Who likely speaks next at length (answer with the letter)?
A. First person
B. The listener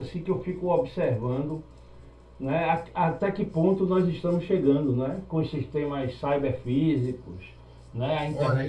B